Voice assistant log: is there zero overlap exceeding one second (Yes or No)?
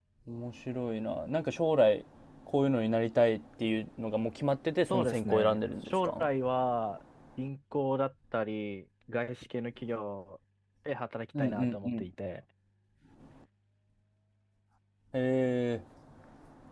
No